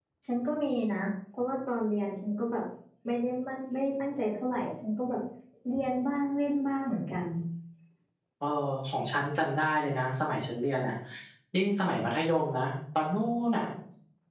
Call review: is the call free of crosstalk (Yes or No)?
Yes